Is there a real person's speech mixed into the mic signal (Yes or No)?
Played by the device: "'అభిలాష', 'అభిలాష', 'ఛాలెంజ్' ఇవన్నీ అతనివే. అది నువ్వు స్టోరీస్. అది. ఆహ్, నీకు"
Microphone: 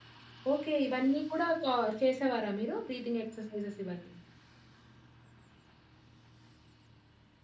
Yes